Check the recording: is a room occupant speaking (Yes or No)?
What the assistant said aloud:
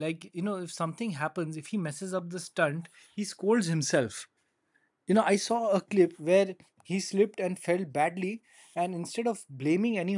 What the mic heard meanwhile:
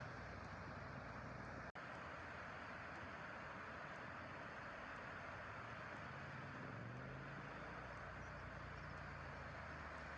No